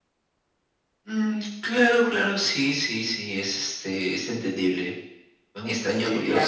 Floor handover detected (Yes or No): Yes